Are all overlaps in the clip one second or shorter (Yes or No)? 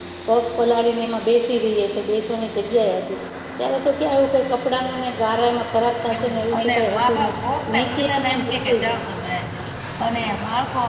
No